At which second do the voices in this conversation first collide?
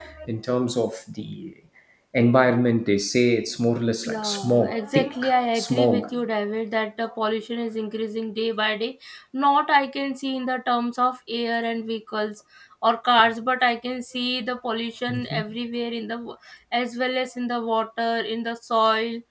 4.0 s

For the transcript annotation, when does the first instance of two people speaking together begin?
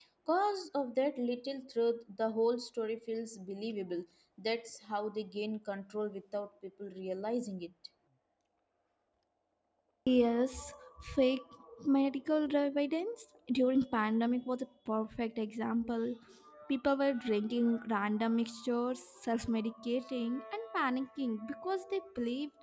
none

